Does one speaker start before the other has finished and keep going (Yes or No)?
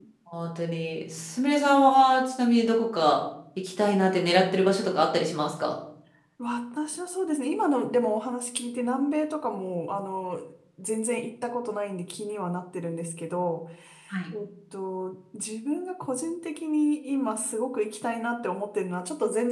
No